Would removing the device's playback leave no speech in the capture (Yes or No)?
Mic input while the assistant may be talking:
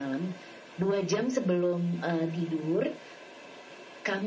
Yes